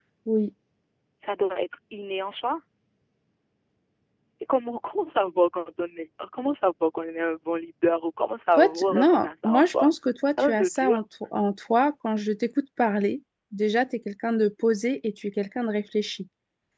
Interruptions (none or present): present